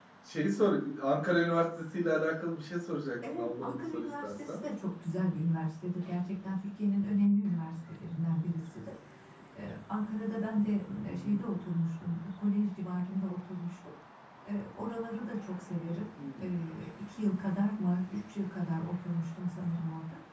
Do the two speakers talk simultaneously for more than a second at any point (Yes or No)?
Yes